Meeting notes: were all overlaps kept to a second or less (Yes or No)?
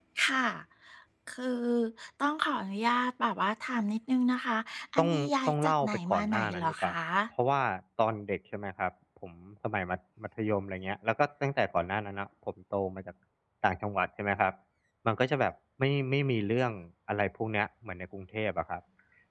No